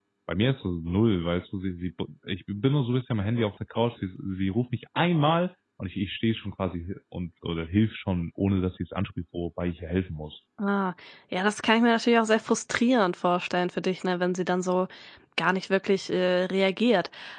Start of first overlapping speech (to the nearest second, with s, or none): none